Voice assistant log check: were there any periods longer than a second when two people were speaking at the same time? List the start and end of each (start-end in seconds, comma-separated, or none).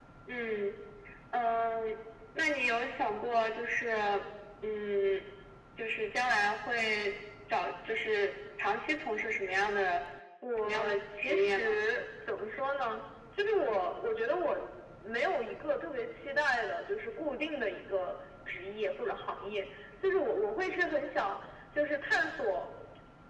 10.6-11.8